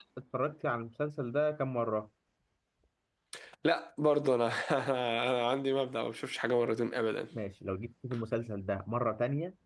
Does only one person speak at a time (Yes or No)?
Yes